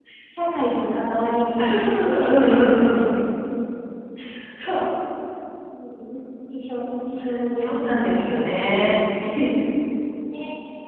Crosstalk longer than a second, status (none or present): present